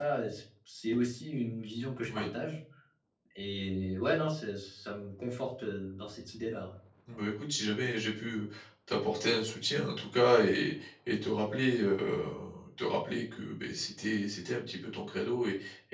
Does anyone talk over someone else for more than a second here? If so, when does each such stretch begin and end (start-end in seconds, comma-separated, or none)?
none